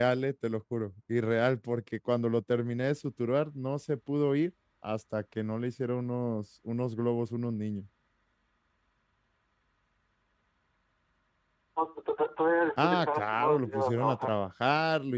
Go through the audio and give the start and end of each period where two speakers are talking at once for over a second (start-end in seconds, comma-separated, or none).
12.8-14.3